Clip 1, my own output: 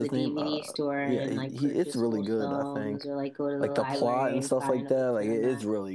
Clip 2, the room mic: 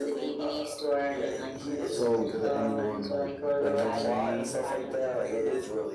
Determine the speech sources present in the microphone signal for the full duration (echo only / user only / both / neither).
both